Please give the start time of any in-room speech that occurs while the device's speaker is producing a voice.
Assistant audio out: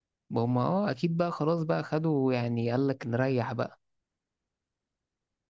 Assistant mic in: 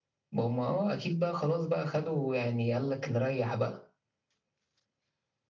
none

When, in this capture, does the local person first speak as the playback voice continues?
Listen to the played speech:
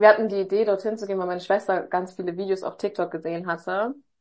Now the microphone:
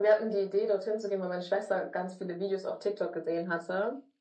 none

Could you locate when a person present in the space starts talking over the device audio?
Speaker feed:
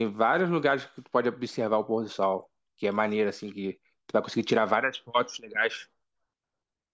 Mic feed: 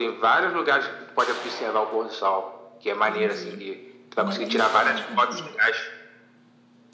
3.0 s

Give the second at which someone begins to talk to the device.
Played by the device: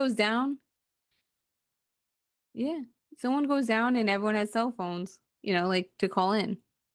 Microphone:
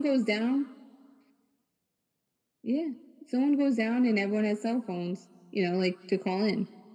none

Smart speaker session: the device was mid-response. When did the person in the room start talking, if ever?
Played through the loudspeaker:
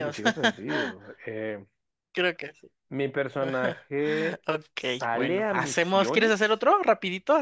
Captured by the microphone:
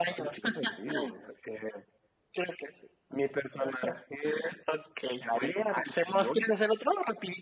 none

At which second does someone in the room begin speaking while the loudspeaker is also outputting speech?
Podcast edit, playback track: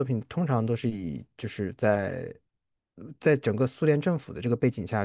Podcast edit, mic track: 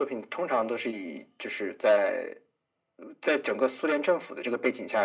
none

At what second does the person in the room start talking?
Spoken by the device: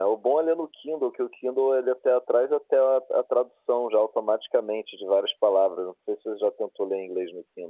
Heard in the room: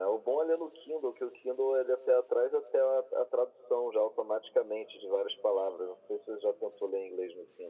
none

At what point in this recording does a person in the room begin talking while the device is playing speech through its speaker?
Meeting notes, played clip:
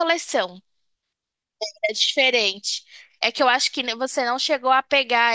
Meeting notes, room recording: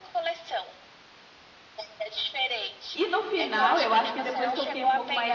3.0 s

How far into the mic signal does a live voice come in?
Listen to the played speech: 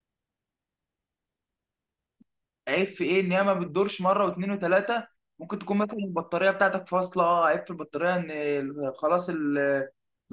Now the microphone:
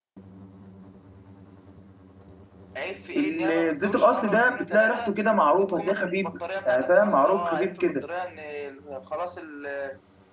3.1 s

